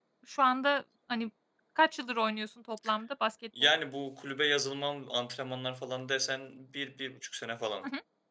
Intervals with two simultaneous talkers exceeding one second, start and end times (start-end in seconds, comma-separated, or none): none